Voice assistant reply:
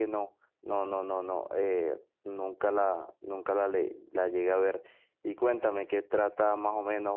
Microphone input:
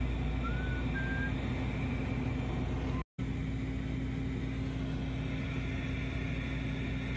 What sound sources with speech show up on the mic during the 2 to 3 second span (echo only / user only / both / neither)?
neither